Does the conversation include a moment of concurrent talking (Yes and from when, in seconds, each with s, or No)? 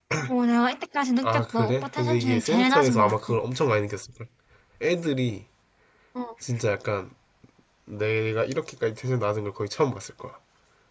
Yes, from 1.2 s